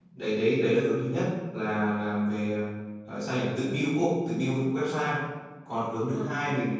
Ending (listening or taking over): listening